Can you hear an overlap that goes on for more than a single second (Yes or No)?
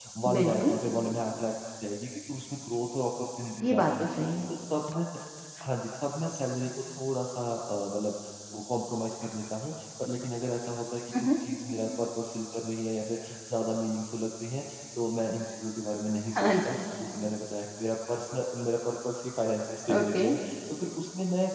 No